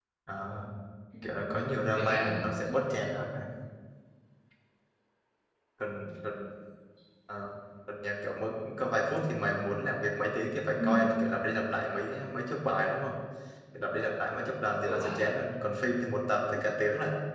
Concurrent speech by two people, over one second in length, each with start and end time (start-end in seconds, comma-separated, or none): 1.2-2.4